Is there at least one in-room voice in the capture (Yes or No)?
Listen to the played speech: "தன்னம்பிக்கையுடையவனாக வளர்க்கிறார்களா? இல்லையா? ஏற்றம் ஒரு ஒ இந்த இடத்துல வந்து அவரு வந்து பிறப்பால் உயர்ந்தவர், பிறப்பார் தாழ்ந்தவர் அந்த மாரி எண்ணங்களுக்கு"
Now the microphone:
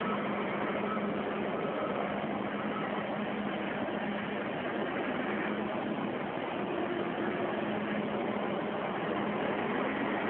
No